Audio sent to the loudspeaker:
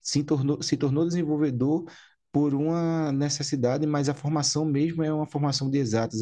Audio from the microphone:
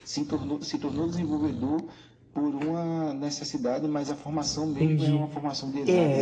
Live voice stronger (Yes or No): Yes